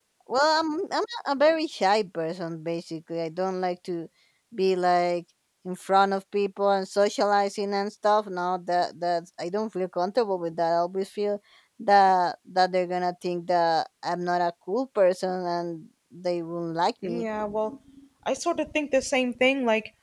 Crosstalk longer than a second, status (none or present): none